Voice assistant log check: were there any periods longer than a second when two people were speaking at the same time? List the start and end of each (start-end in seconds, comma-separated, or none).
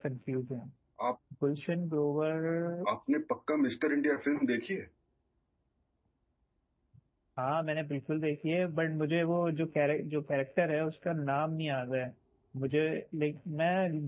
none